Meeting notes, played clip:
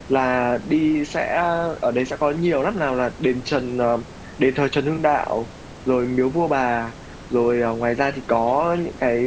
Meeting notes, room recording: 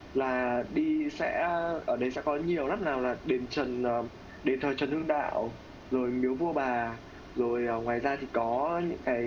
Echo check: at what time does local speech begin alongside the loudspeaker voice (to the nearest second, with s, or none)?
none